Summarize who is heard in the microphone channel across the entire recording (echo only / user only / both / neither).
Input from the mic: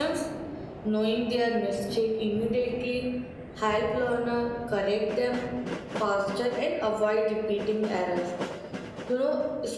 echo only